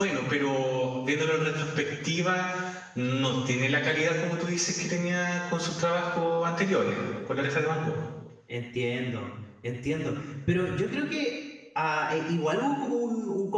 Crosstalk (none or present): none